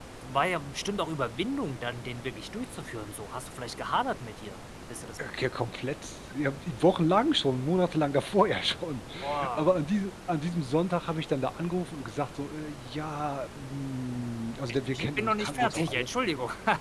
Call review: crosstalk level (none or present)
present